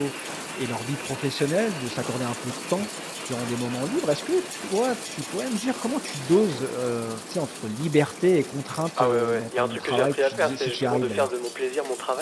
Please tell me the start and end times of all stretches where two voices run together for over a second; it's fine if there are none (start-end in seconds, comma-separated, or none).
9.0-11.3